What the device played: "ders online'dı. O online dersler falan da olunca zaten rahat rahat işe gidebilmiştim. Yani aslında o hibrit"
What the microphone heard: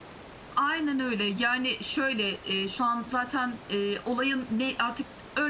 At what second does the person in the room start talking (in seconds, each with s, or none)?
0.6 s